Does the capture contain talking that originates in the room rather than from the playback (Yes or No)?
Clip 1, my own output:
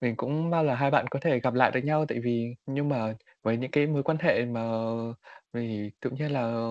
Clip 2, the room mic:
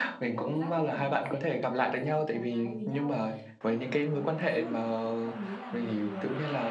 Yes